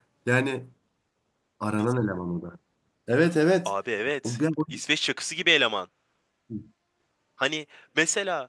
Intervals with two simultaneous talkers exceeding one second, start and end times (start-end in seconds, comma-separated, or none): none